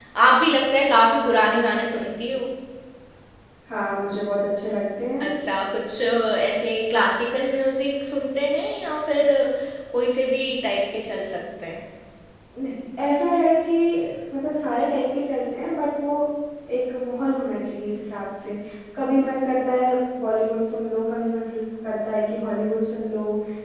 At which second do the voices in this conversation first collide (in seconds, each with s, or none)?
none